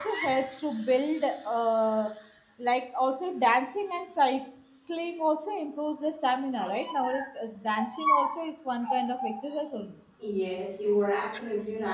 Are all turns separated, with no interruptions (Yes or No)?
Yes